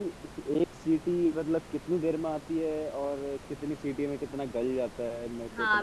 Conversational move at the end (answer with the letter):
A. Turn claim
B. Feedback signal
A